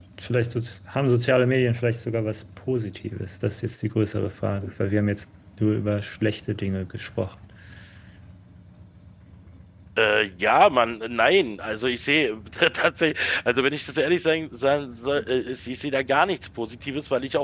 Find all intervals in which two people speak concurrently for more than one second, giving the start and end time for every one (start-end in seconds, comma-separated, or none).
none